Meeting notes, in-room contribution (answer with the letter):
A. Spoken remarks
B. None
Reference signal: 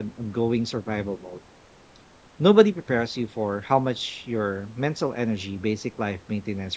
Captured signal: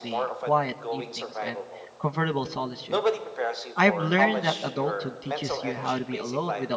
A